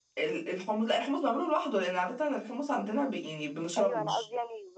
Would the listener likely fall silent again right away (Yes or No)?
No